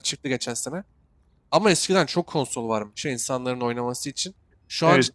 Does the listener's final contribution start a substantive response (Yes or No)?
No